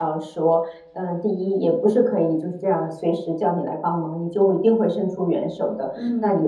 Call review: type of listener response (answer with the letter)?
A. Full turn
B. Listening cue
B